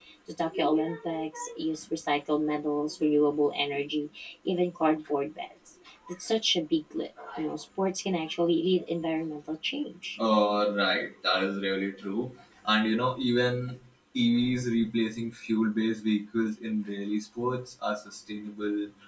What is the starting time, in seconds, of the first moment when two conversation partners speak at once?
none

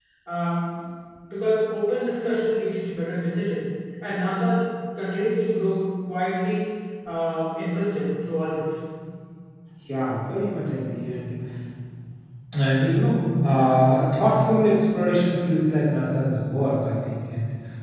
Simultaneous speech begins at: none

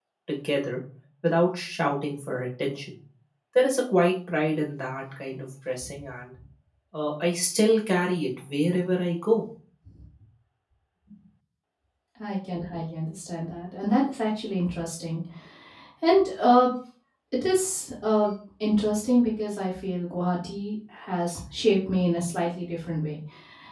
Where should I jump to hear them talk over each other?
none

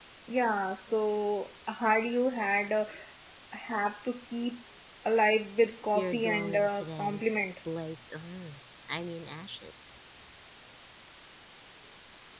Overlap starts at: 6 s

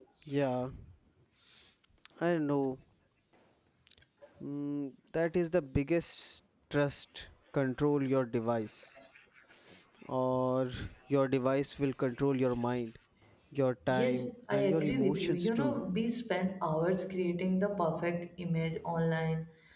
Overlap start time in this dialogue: 14 s

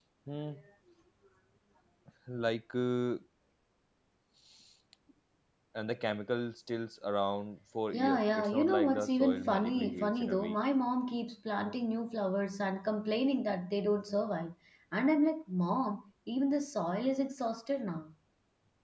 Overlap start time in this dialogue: 8 s

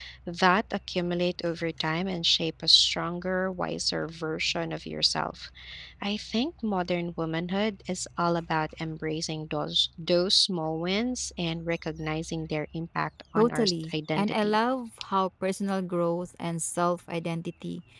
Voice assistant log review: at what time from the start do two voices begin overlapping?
13 s

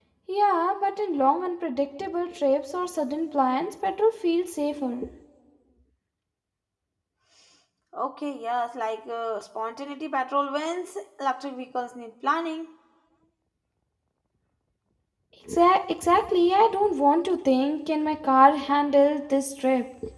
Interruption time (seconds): none

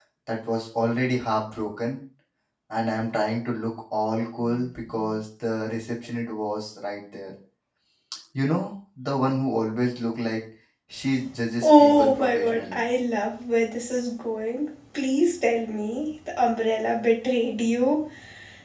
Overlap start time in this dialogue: 12 s

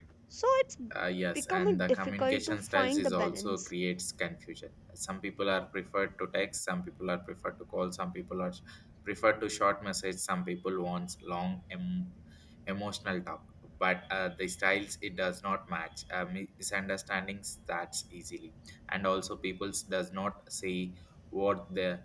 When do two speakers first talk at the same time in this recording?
1 s

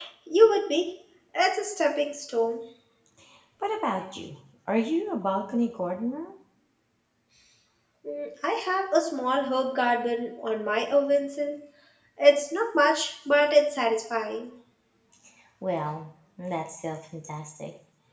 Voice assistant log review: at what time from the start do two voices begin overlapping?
none

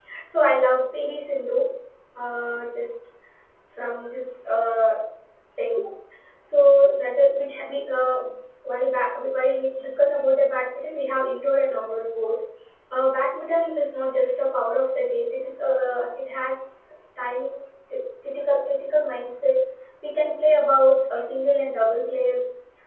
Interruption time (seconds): none

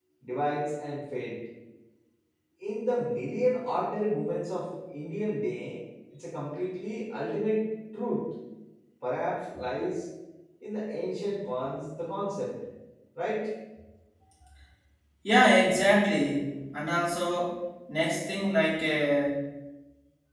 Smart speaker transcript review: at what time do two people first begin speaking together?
none

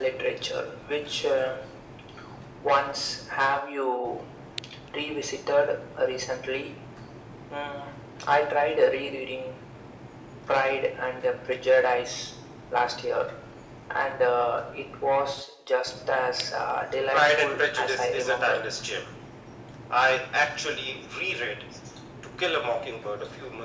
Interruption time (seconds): 17 s

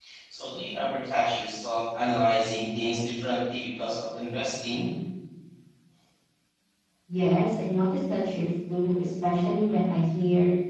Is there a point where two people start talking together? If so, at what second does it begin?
none

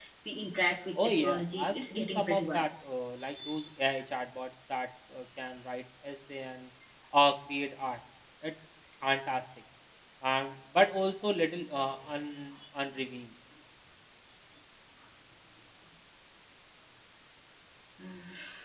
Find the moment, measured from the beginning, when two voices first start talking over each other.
1 s

